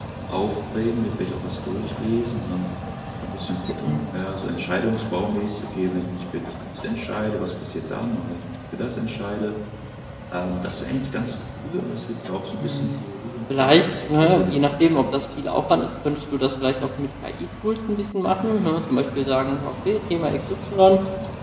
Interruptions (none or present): present